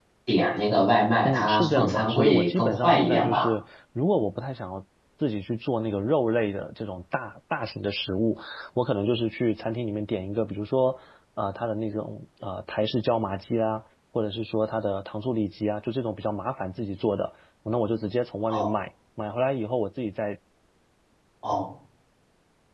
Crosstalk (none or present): present